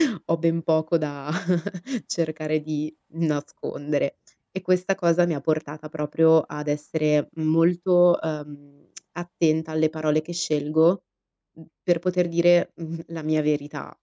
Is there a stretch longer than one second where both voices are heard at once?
No

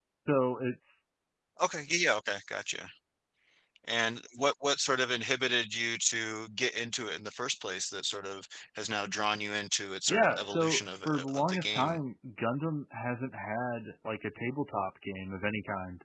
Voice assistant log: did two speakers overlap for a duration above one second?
Yes, from 10.1 s

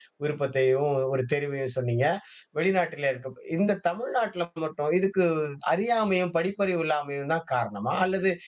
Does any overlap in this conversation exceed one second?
No

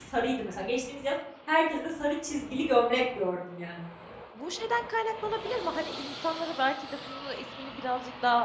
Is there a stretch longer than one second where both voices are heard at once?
No

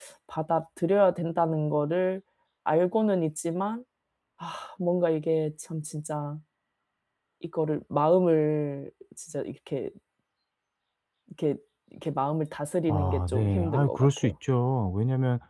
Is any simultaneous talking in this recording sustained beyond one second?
Yes, from 12.9 s

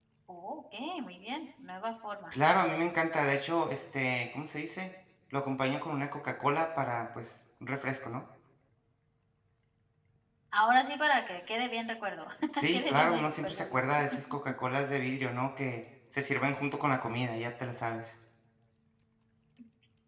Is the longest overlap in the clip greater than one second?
Yes, from 12.7 s

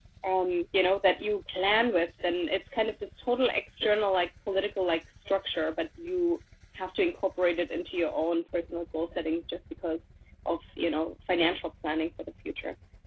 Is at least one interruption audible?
No

